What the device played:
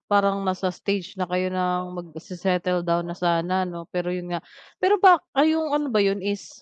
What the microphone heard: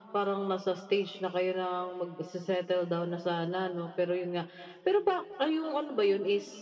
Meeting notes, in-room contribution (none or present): none